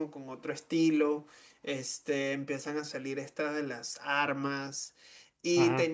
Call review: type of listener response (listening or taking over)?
listening